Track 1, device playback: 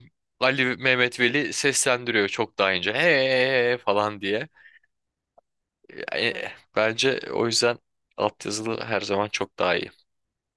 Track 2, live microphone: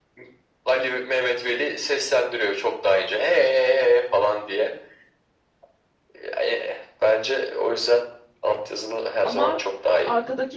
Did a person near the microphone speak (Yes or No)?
Yes